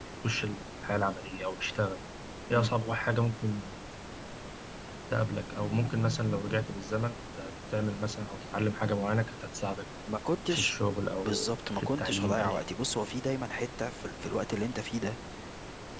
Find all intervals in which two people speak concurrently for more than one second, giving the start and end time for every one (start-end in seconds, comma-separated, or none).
11.2-12.6